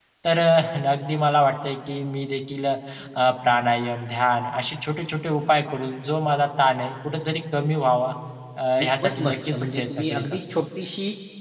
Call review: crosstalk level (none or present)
present